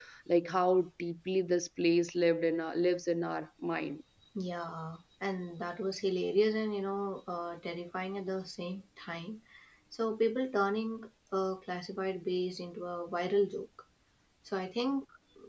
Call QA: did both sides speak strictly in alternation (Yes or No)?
Yes